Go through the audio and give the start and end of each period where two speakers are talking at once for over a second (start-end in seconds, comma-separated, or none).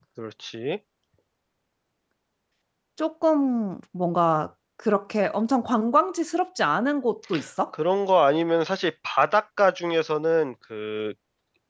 none